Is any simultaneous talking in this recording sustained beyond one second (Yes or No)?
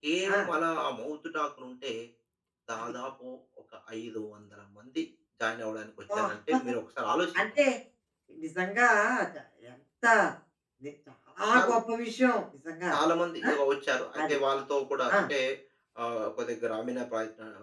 No